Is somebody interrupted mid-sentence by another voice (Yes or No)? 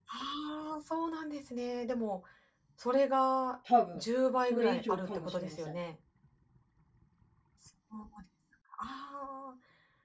Yes